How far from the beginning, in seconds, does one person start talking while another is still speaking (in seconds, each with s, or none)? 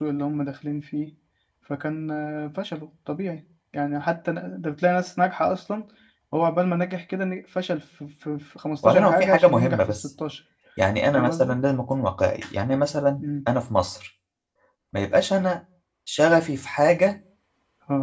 8.8 s